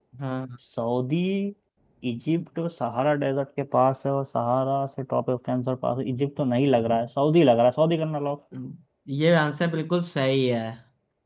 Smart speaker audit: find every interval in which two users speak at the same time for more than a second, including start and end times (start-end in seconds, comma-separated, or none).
none